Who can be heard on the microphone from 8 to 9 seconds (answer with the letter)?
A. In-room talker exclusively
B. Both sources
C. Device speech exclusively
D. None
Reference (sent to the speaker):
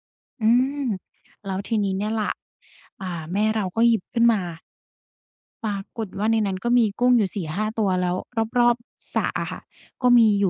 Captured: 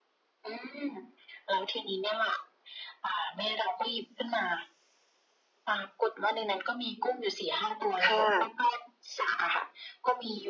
B